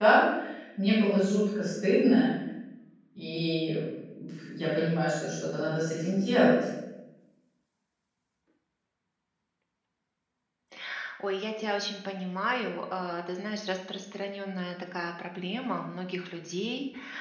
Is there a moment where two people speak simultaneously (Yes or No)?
No